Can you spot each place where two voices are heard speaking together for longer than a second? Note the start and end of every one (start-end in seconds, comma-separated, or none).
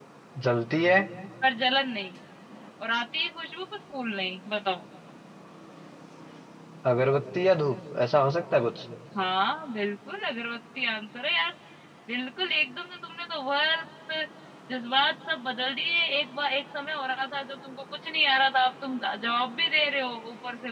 none